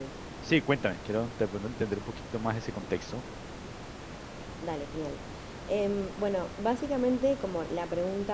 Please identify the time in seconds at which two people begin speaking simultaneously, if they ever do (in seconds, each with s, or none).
none